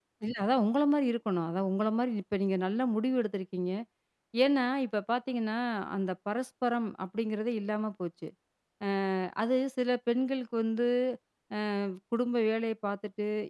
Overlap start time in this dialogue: none

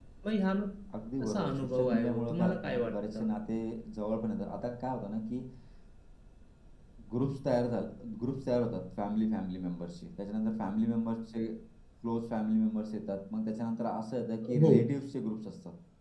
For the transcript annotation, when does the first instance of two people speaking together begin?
1.2 s

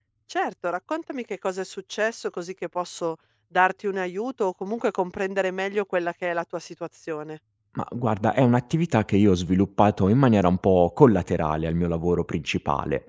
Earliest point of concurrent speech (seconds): none

